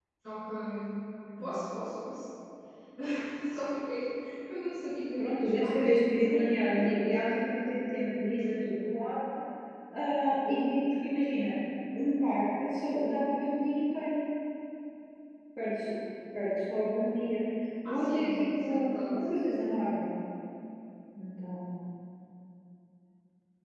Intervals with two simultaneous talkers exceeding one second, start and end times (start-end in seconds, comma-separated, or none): 5.2-7.2, 17.9-19.2